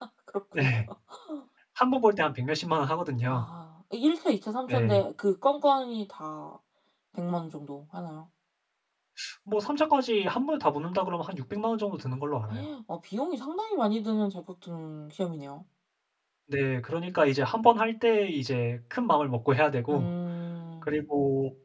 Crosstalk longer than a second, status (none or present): none